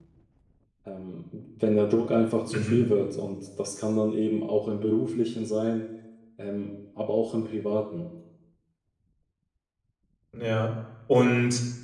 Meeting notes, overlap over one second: none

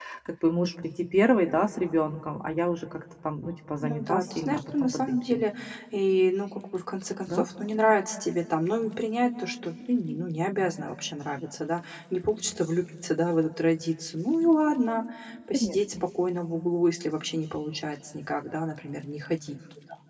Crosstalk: present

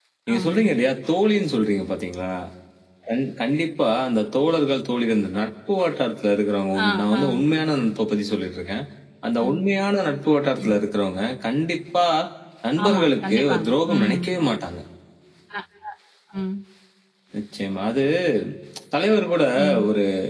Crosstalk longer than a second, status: present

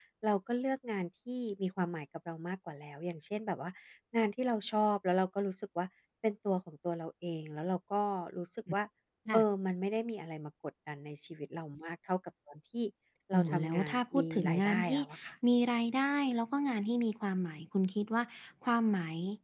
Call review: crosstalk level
present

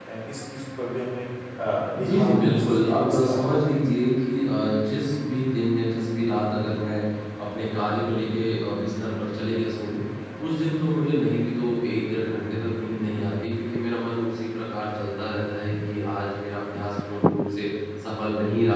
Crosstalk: present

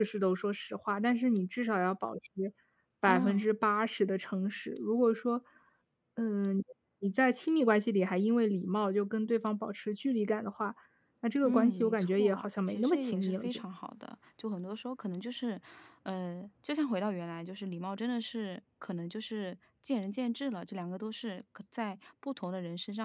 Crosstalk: present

